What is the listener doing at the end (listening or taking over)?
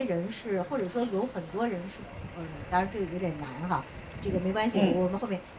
listening